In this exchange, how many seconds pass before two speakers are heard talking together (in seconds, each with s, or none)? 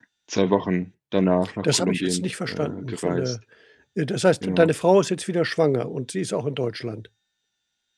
1.6 s